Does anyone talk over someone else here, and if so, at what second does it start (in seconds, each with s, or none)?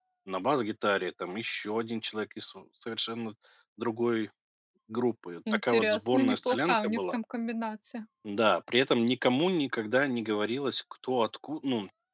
5.5 s